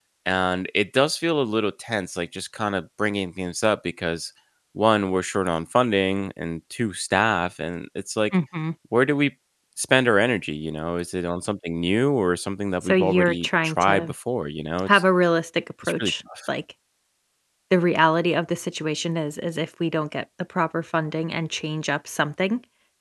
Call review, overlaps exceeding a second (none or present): present